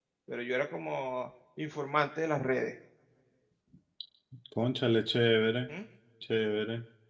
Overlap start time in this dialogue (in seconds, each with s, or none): none